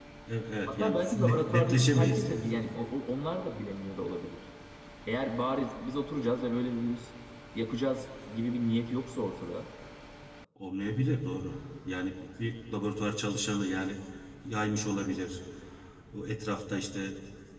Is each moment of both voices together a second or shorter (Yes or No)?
No